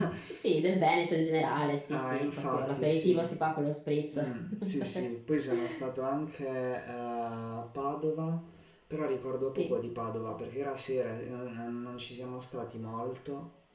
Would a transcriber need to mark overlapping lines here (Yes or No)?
Yes